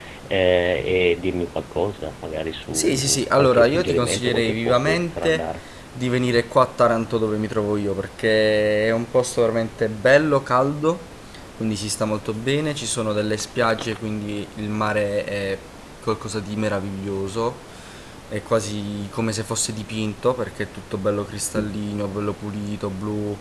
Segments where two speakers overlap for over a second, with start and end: 2.7-5.5

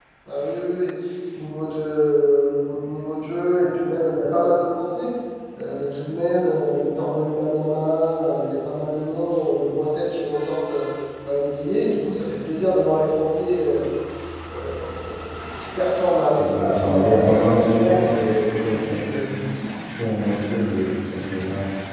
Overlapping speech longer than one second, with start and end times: 16.4-18.9

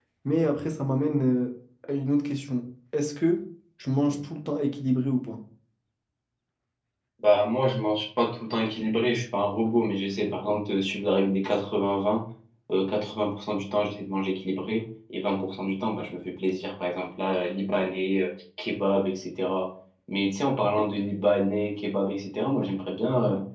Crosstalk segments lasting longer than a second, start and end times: none

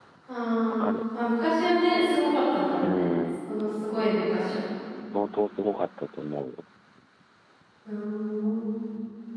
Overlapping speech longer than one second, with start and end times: none

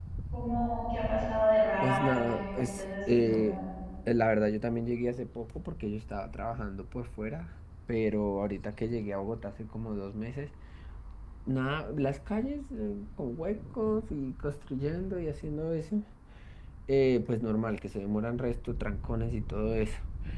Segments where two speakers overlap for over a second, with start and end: 1.8-3.6

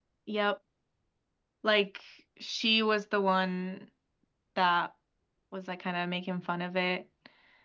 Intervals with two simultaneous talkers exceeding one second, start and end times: none

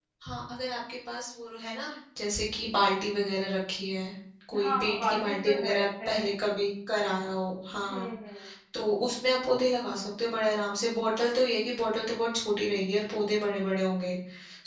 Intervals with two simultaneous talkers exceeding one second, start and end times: 4.6-6.1

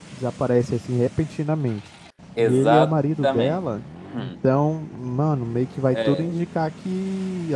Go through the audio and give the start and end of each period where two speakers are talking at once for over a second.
2.4-3.6

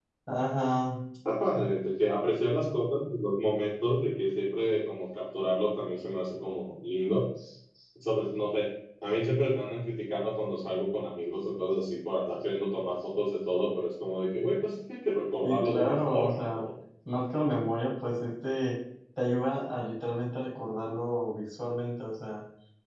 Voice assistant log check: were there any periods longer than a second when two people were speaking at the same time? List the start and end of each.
15.4-16.7

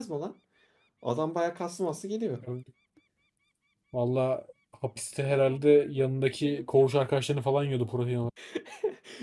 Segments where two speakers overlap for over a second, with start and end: none

